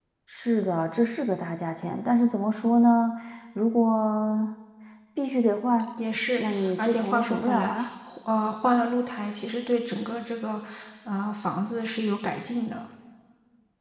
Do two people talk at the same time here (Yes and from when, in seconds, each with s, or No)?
Yes, from 6.4 s